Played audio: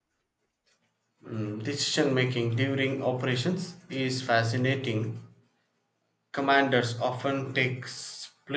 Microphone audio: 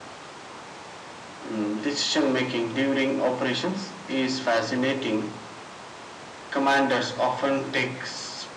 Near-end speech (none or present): none